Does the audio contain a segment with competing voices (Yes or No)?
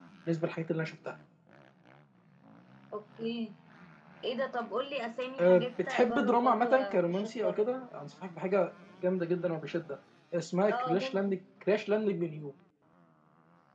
Yes